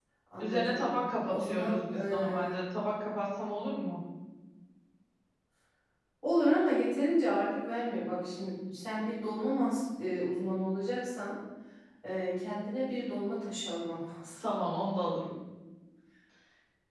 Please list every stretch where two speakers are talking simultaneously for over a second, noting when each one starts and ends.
1.3-2.5

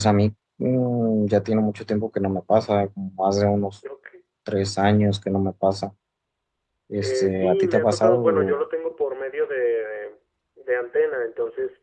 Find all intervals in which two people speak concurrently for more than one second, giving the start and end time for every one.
7.0-8.6

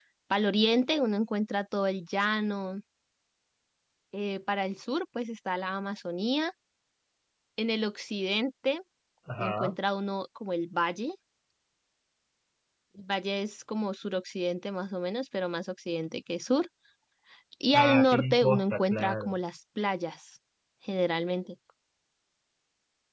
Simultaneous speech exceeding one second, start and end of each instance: 17.7-19.3

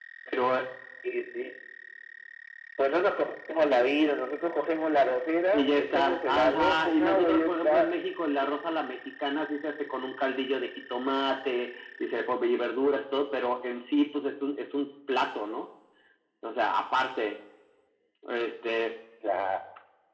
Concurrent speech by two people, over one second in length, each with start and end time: 5.5-7.9

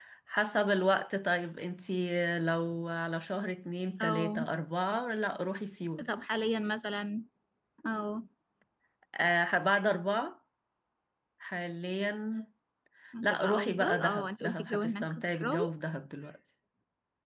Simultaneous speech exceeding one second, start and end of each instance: 13.2-15.6

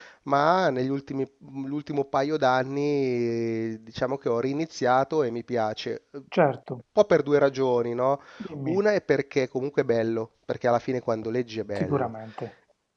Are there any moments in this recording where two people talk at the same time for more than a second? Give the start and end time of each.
none

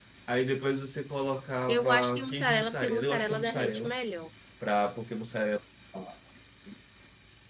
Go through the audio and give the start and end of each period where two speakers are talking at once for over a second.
1.7-4.0

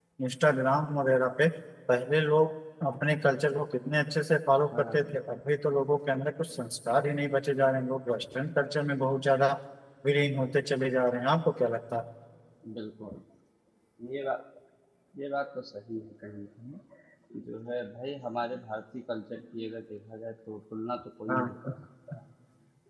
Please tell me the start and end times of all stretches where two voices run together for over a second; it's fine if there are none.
none

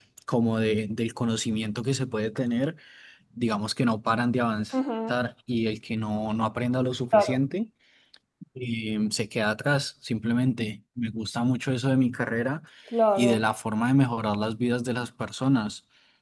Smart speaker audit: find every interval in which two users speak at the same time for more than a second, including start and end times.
none

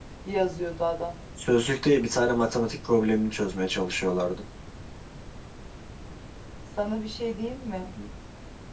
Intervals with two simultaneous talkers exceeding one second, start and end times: none

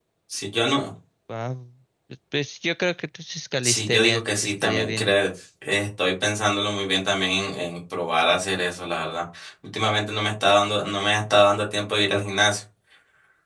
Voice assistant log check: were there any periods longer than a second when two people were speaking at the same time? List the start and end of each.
3.6-5.1

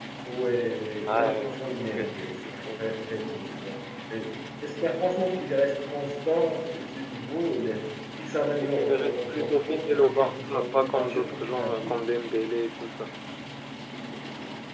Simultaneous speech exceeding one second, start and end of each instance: 1.1-2.9, 8.6-11.9

